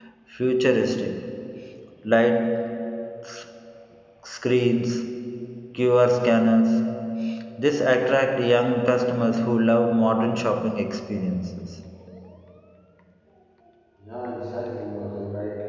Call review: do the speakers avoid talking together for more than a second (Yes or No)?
Yes